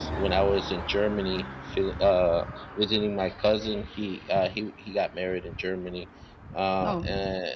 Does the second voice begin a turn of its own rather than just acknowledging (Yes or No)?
No